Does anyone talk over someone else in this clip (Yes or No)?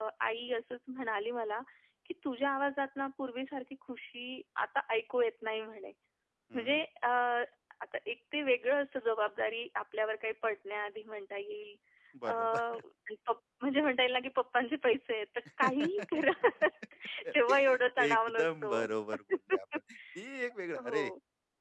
Yes